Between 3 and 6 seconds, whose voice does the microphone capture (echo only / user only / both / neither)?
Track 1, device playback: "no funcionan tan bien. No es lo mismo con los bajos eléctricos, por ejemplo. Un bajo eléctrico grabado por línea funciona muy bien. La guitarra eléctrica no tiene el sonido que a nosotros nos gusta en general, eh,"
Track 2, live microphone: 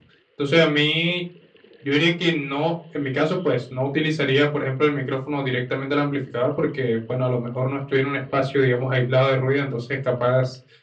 user only